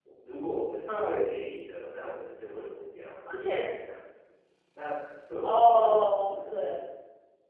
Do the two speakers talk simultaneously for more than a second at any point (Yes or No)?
Yes